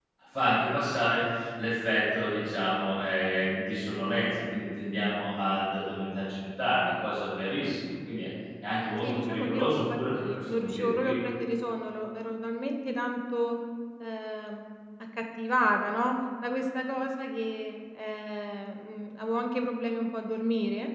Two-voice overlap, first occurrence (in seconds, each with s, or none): 9.0 s